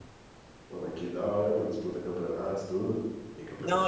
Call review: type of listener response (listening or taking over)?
taking over